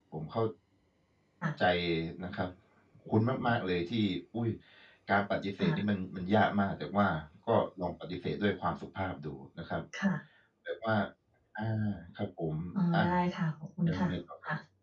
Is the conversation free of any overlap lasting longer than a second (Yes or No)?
Yes